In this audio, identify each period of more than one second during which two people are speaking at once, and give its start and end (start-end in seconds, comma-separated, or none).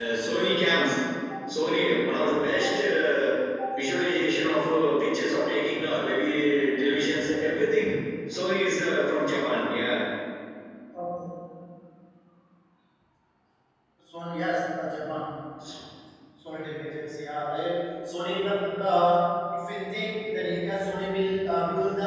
none